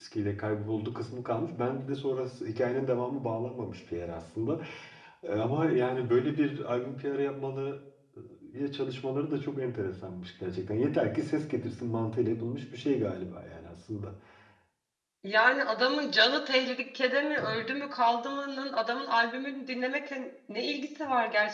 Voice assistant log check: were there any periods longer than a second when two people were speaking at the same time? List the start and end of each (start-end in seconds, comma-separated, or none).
none